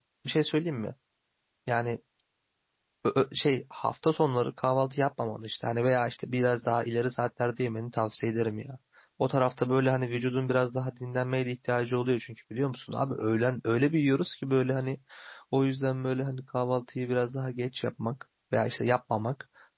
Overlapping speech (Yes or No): No